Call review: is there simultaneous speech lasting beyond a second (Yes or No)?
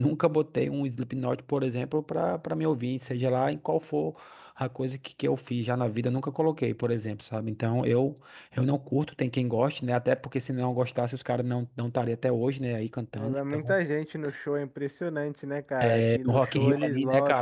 Yes